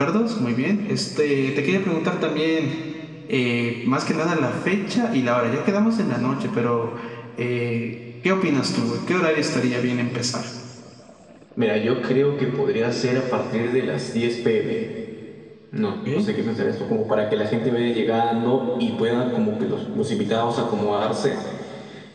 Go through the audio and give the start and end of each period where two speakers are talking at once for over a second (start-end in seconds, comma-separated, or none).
none